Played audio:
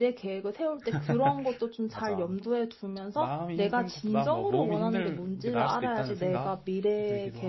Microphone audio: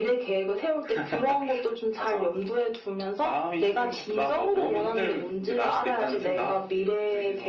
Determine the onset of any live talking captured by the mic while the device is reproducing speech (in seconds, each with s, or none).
none